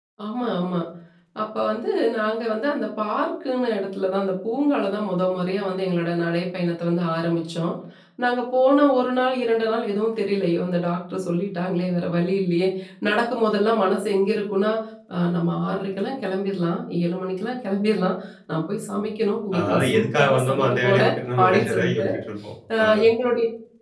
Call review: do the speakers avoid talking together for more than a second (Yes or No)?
No